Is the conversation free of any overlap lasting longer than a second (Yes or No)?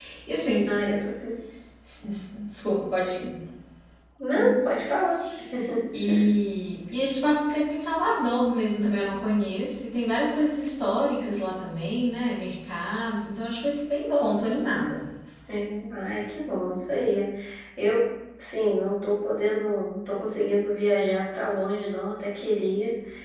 Yes